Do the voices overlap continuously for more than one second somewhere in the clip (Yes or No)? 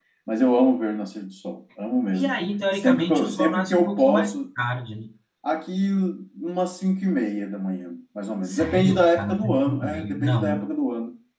Yes